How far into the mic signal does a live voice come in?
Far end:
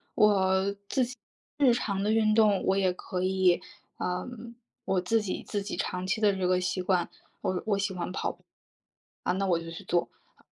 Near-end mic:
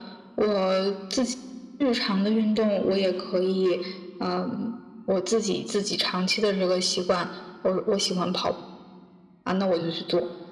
none

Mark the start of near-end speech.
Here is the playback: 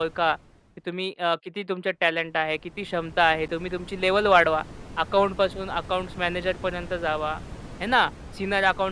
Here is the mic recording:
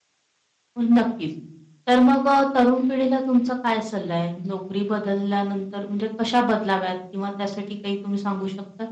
0.8 s

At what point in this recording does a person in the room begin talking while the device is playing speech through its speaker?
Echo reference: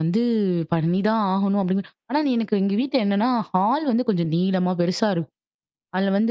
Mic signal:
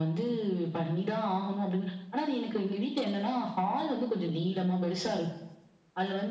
none

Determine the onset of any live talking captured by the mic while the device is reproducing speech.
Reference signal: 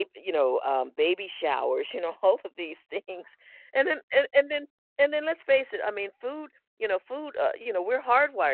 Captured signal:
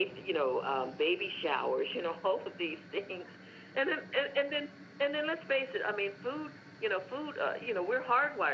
none

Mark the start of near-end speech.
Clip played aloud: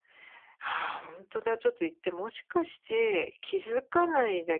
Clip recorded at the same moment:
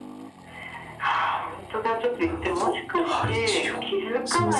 2.2 s

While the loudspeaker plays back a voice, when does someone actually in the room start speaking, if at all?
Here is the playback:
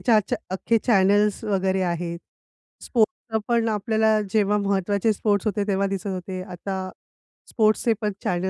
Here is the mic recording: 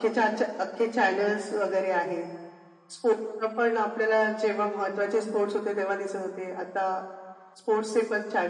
none

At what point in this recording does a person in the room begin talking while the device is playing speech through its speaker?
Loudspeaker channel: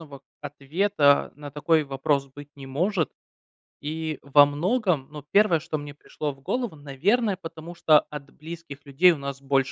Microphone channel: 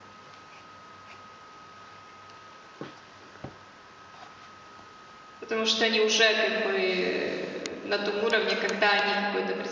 5.4 s

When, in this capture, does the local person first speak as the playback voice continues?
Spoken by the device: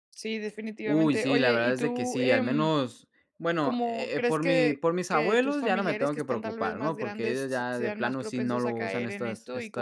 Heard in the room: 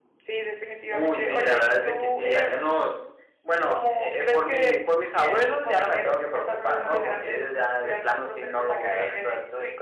6.8 s

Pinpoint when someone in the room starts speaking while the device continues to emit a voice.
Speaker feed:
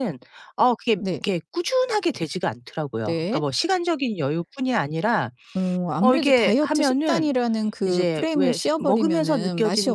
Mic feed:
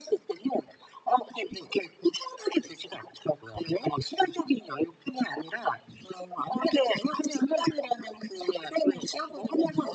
none

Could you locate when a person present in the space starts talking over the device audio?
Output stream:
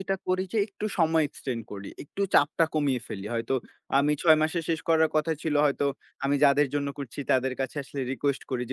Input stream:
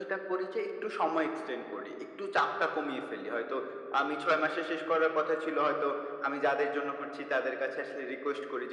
none

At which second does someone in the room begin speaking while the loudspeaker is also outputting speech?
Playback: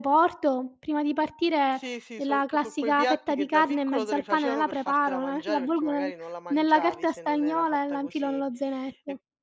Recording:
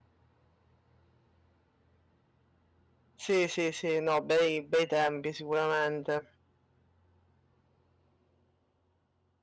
3.2 s

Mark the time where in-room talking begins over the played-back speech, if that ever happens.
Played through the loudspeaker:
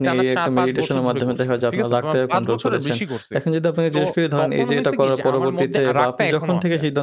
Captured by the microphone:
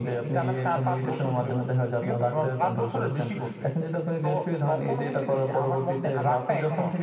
none

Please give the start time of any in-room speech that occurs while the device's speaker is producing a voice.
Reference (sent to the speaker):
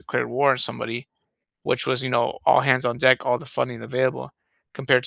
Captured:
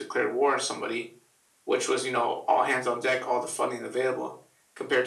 none

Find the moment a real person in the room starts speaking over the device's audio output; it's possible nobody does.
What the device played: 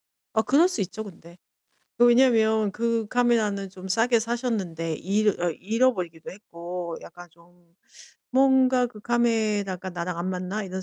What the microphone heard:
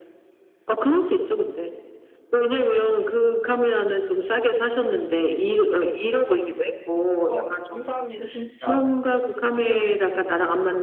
7.2 s

